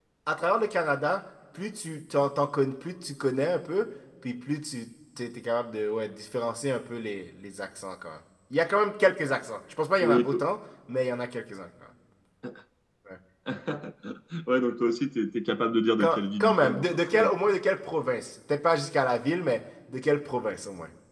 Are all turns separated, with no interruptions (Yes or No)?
No